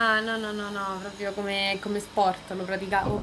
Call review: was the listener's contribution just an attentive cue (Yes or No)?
No